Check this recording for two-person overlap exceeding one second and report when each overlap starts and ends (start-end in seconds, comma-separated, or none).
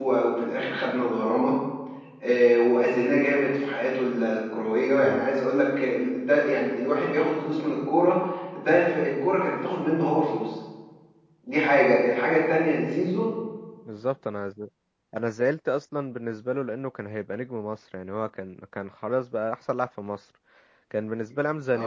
none